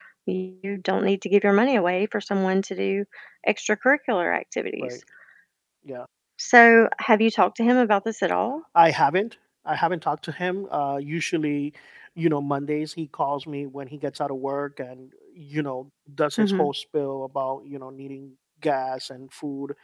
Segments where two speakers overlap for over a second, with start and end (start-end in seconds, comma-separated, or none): none